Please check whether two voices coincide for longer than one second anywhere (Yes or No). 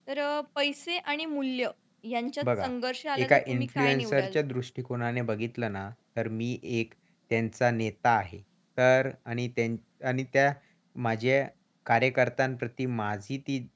Yes